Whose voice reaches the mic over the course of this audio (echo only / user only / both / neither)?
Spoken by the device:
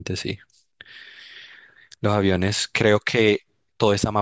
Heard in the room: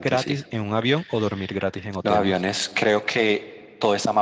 both